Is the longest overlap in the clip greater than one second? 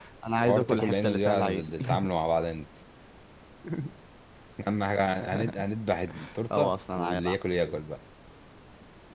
Yes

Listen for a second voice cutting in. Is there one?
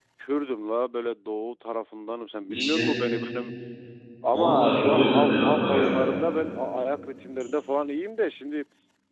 Yes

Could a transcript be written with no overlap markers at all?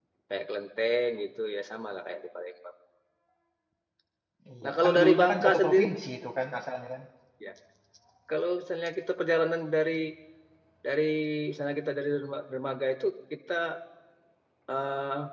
No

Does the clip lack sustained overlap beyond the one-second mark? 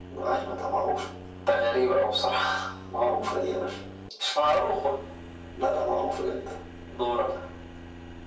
Yes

